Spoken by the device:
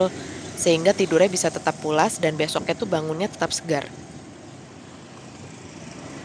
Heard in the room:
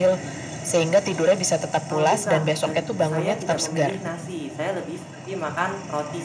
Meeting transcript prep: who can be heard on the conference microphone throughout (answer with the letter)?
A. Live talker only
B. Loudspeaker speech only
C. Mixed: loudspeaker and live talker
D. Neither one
C